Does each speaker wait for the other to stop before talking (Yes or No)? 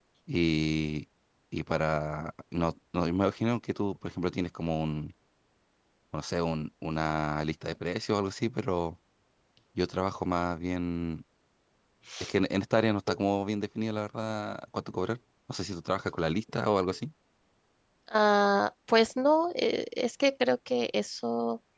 Yes